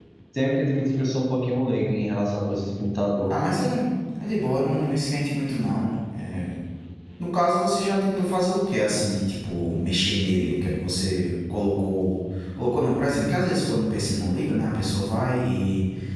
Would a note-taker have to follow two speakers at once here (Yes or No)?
No